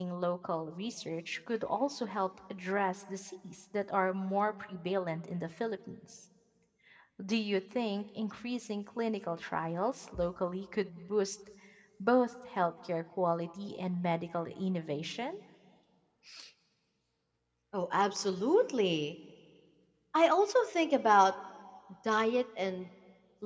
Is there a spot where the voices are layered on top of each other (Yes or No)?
No